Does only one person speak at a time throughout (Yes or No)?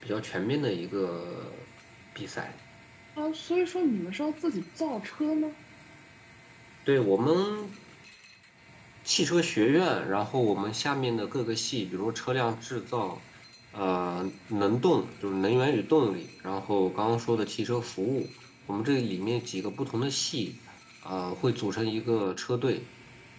Yes